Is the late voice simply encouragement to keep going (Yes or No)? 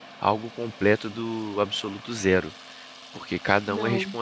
Yes